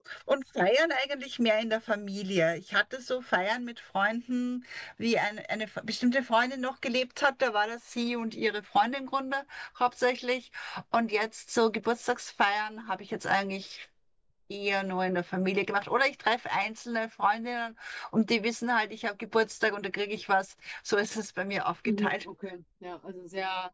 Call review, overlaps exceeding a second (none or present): none